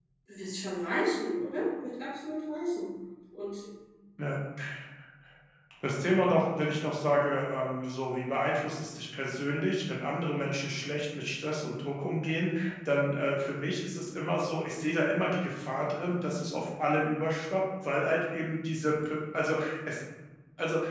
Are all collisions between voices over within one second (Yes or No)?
Yes